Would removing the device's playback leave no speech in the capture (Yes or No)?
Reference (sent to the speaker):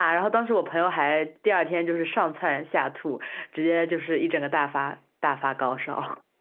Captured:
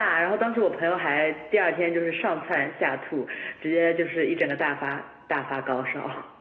Yes